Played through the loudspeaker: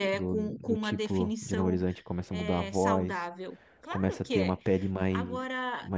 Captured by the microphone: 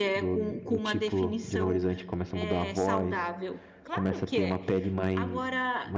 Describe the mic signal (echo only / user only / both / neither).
echo only